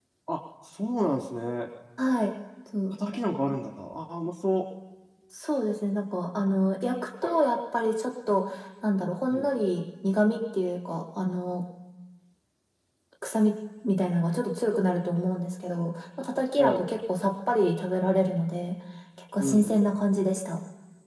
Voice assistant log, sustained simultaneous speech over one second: none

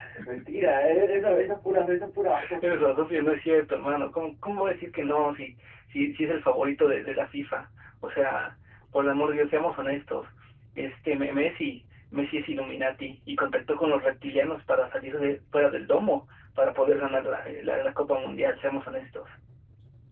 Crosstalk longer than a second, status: none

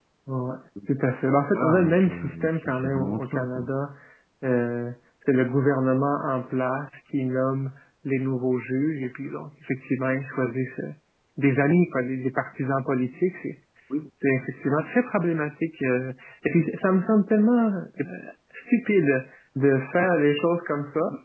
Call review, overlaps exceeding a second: present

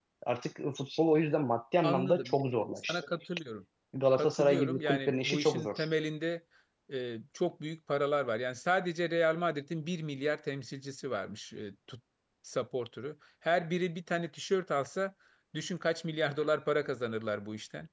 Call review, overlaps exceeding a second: present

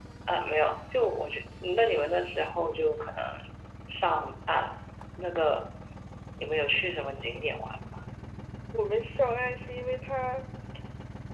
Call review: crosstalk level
none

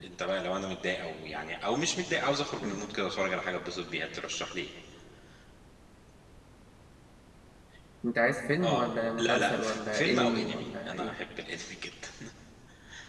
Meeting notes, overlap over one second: present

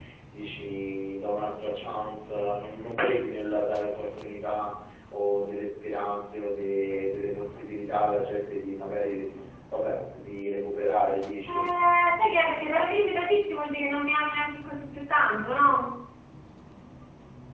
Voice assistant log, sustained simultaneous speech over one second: none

